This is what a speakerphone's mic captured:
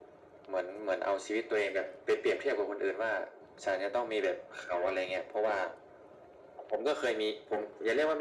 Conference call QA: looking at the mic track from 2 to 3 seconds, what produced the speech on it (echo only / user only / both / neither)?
echo only